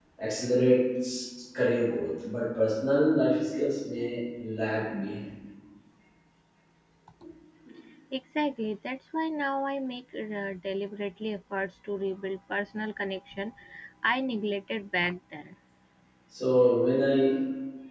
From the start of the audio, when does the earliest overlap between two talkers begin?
none

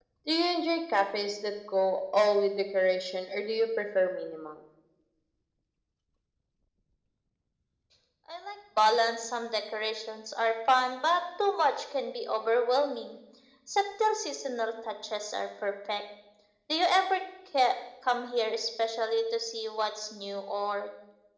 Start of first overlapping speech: none

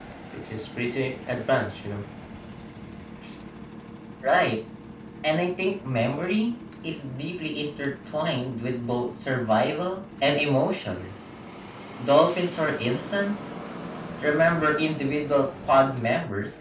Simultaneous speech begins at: none

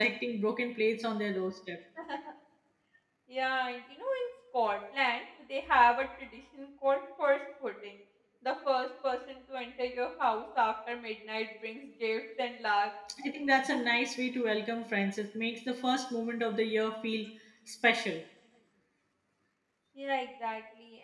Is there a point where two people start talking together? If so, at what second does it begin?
none

